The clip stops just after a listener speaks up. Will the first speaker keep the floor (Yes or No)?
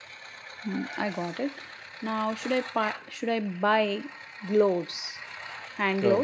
No